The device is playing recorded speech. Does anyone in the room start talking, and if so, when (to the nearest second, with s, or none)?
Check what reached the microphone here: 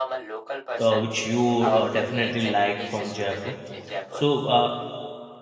1 s